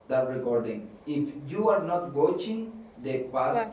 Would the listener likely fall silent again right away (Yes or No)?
Yes